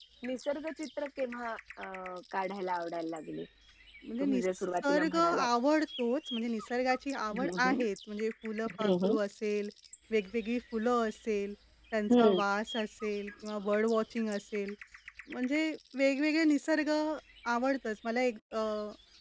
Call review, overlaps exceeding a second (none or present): present